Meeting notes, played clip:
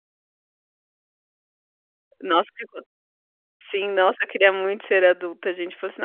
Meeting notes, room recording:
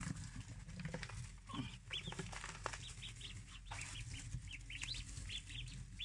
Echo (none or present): none